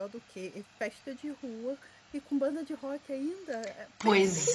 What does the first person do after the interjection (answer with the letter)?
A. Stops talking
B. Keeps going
A